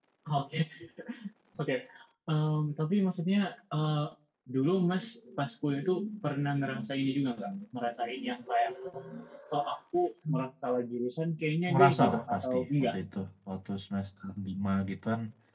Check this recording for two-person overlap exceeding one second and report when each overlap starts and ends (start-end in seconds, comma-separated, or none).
11.7-13.0